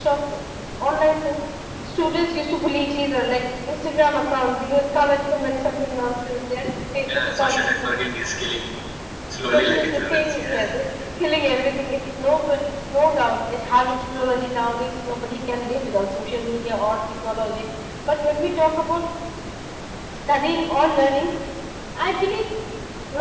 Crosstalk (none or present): present